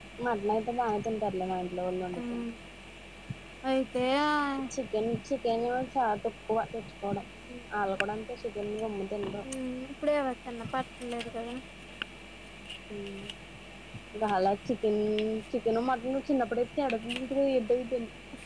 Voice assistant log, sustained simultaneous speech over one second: none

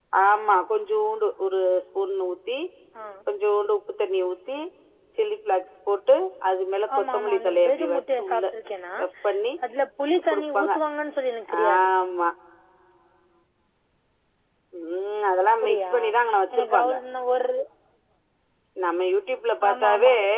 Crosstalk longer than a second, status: present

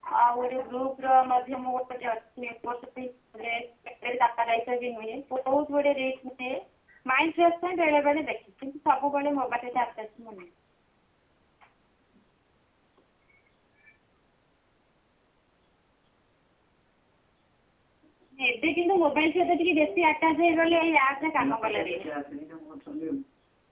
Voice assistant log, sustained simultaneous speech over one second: present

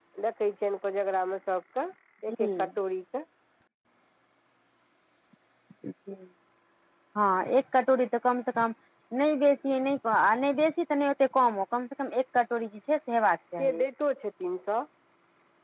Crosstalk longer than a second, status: none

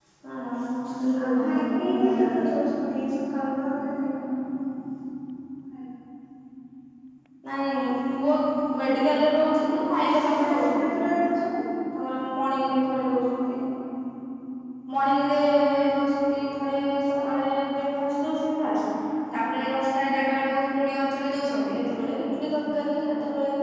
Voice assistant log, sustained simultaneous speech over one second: present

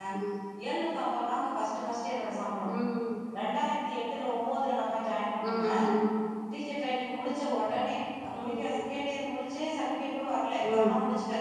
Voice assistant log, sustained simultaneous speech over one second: none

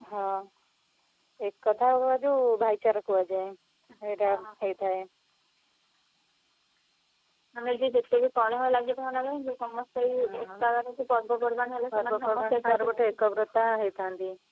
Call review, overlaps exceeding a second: present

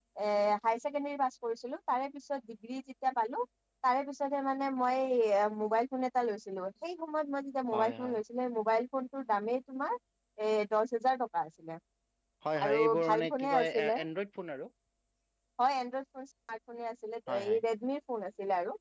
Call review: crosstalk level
present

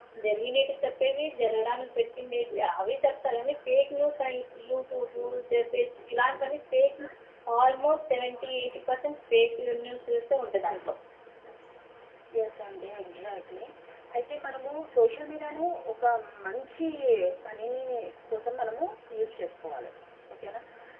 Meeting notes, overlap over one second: none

